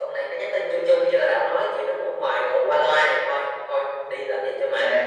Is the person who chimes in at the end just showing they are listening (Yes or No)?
No